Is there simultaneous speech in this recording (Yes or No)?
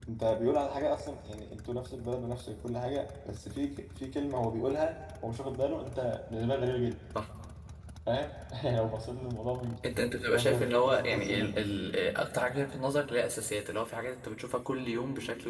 Yes